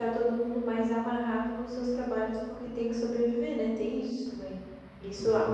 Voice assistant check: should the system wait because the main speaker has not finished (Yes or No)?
Yes